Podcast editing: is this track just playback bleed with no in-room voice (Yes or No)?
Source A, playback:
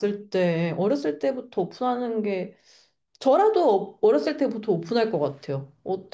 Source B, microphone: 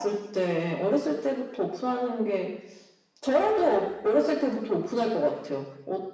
Yes